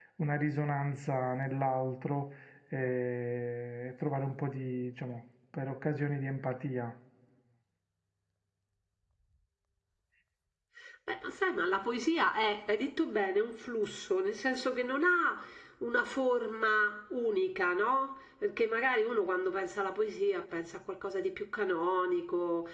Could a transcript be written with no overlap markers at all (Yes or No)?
Yes